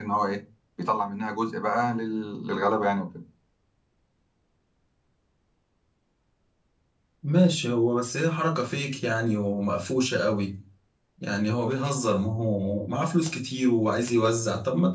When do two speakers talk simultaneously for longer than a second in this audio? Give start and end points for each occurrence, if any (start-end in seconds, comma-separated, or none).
none